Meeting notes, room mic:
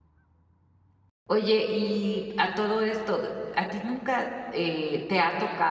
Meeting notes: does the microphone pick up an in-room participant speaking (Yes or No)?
Yes